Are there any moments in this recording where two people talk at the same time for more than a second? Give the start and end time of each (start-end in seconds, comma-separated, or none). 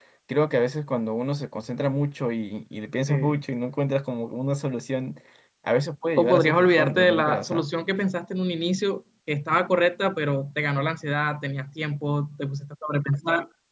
6.2-7.6